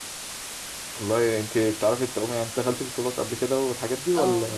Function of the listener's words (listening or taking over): taking over